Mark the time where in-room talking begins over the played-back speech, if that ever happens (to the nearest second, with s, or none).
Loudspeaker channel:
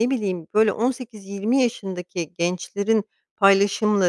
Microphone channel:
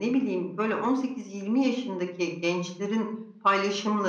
none